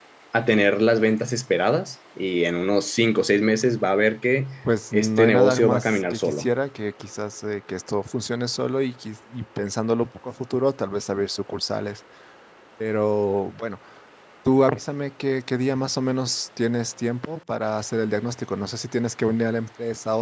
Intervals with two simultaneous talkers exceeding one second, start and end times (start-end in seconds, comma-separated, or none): 4.9-6.5